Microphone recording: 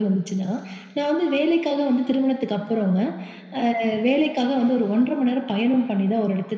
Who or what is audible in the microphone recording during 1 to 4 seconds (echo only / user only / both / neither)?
echo only